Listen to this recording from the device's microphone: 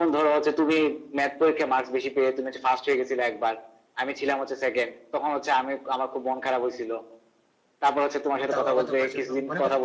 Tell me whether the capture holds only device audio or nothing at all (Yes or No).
No